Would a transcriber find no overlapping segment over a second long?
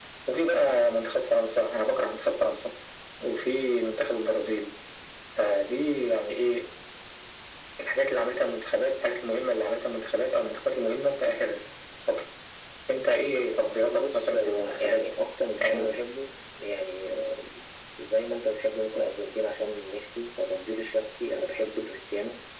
No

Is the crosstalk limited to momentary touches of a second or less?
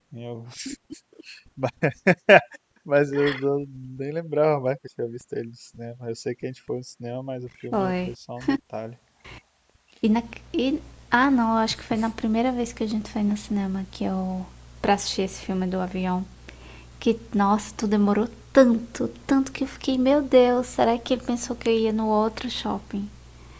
Yes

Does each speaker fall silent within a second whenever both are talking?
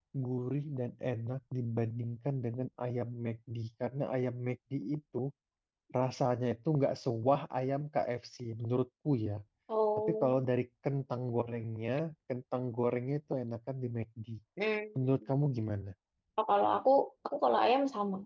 Yes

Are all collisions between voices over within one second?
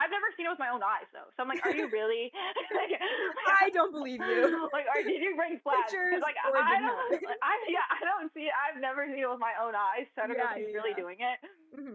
No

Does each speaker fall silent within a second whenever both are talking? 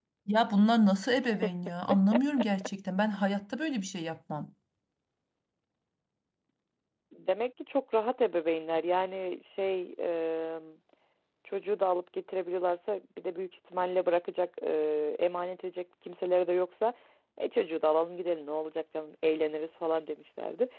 Yes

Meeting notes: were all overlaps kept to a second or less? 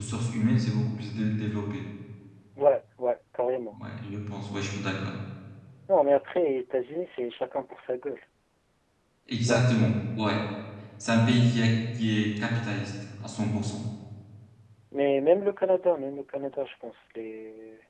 Yes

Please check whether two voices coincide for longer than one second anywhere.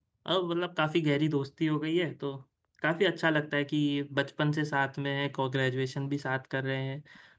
No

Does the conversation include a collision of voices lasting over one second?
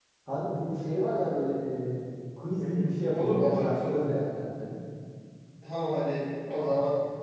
Yes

